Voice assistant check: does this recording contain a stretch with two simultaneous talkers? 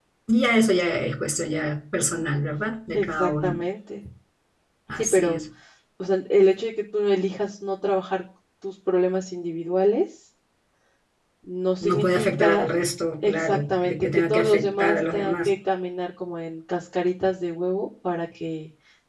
Yes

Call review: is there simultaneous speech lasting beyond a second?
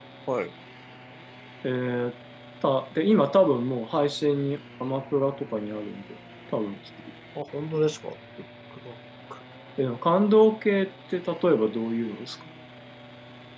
No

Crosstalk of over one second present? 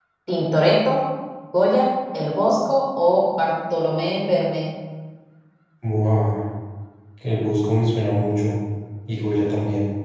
No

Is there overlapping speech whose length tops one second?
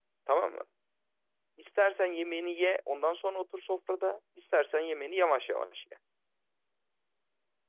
No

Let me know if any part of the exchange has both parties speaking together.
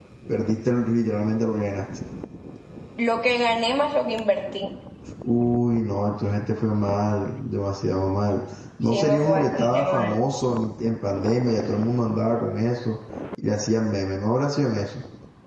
Yes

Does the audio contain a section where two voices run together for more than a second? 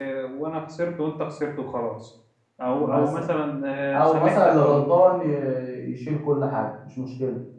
Yes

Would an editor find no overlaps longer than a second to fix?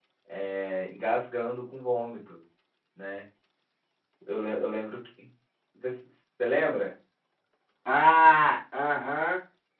Yes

